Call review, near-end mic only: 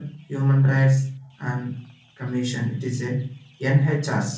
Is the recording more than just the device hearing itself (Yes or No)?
No